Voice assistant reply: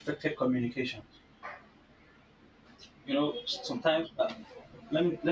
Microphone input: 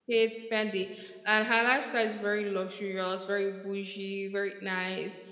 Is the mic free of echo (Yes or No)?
Yes